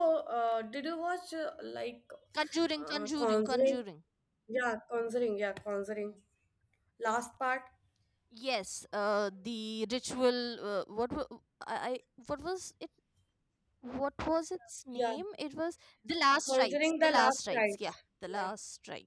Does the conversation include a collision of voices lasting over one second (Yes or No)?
Yes